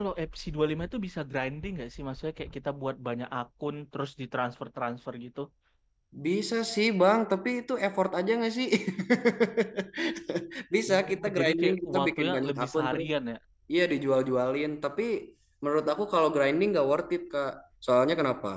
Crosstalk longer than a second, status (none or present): present